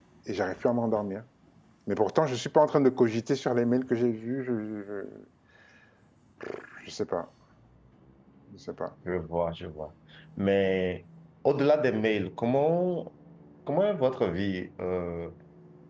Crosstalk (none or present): none